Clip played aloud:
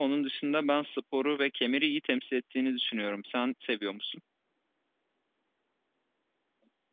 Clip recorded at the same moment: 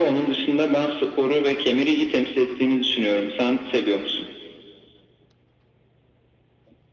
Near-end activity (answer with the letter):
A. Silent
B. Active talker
A